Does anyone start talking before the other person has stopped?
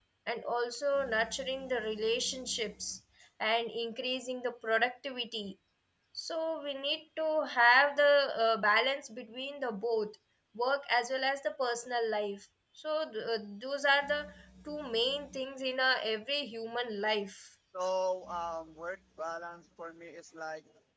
No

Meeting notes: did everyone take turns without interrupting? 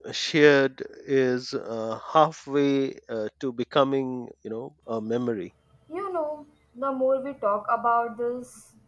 Yes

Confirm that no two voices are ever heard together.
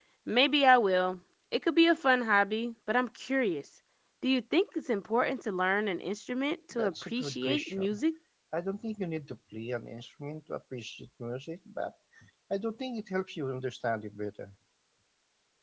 No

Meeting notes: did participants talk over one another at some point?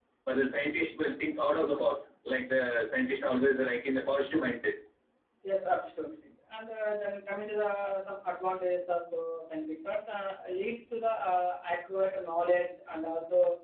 No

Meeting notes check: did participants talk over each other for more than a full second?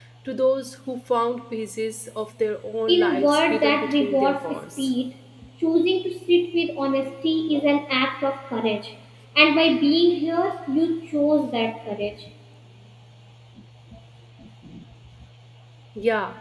Yes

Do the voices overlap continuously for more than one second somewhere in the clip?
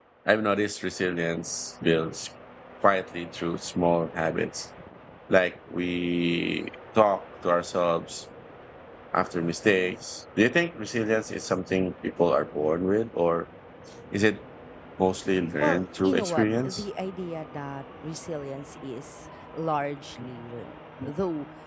Yes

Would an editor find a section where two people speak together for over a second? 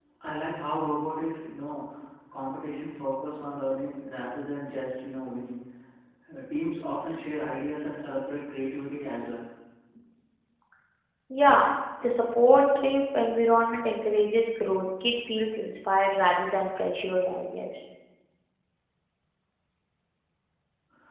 No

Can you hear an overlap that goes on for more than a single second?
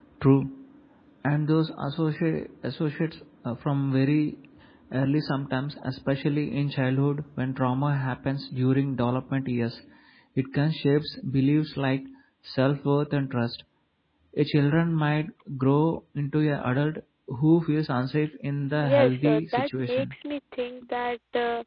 Yes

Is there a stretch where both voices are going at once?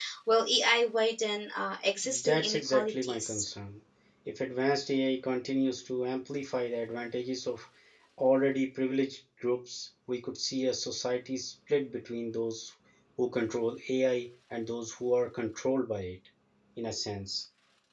Yes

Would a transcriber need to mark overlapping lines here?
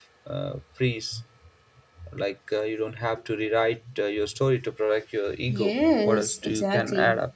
Yes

